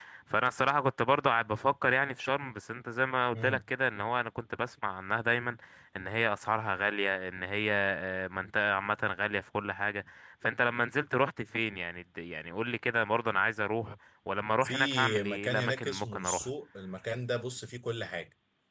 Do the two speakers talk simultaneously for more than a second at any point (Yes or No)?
Yes